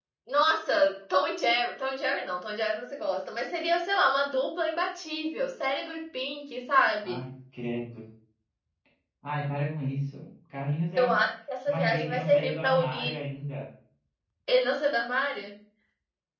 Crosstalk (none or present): present